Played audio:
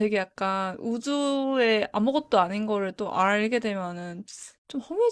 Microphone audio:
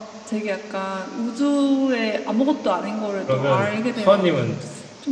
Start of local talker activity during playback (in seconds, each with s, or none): 3.2 s